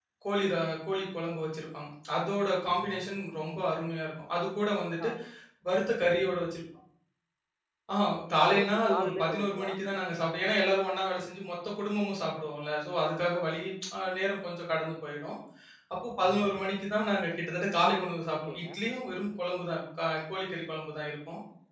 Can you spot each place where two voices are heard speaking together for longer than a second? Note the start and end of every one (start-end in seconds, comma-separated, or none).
8.3-9.7